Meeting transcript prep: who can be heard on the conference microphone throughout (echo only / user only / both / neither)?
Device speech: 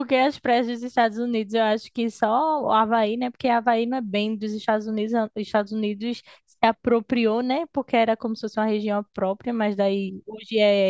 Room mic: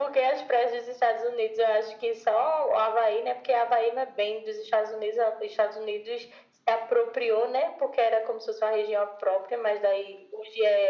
echo only